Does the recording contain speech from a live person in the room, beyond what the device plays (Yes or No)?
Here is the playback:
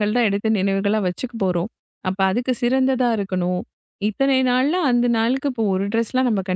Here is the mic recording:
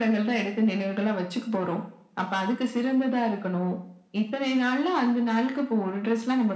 No